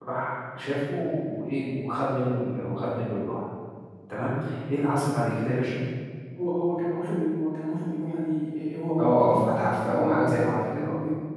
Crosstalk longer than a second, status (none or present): present